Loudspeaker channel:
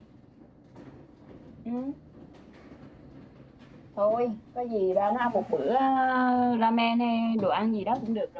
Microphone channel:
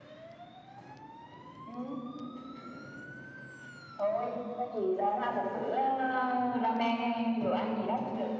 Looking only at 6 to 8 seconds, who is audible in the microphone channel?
echo only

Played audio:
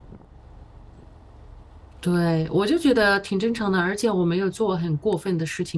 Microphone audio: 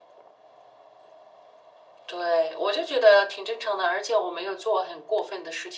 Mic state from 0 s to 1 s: neither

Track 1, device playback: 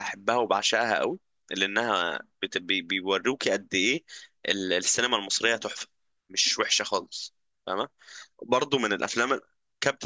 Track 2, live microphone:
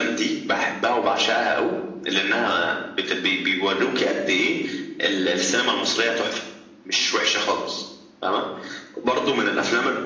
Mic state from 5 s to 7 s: echo only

